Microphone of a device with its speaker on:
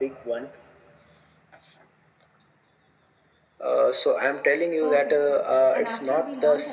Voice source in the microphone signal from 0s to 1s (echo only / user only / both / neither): echo only